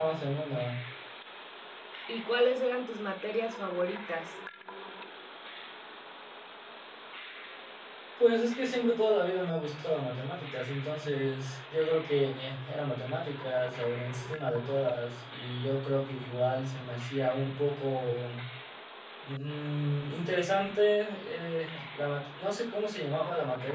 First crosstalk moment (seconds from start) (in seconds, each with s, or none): none